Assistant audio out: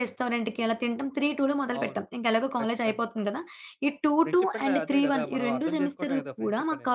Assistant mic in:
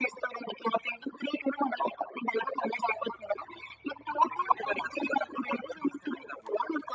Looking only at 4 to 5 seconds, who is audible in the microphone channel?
echo only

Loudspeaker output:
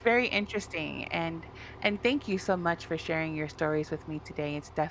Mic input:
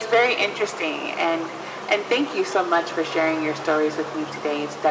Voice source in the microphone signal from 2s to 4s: echo only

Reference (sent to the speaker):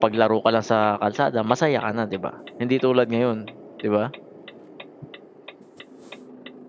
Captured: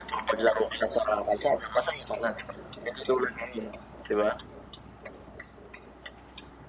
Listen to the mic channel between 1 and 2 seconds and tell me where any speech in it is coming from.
echo only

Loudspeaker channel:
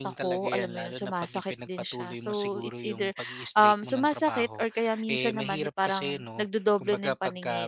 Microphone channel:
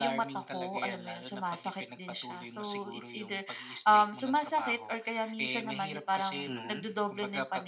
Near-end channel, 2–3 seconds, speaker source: echo only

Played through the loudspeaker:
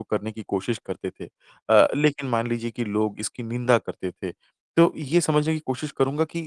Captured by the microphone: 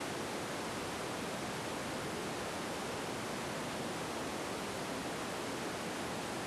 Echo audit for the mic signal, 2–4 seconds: neither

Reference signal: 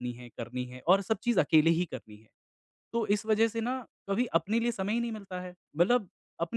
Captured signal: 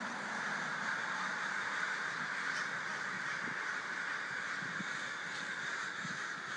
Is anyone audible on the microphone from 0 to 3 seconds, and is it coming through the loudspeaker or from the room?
neither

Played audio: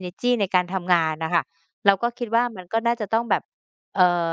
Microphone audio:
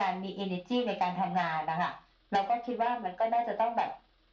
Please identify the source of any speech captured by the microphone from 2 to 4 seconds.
echo only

